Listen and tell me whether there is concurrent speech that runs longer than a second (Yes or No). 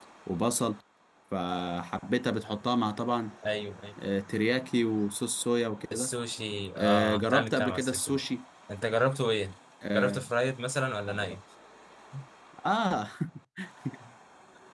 Yes